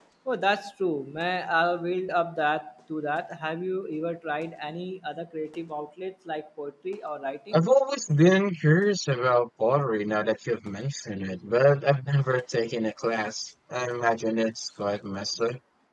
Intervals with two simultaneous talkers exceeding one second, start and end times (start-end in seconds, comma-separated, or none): none